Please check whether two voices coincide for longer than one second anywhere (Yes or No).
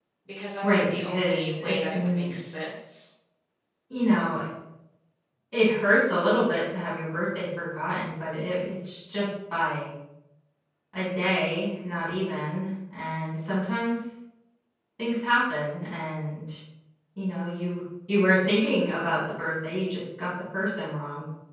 Yes